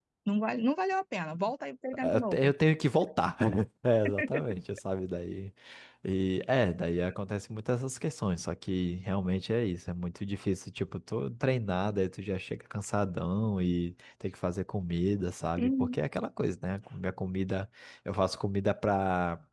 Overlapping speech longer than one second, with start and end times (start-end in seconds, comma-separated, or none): none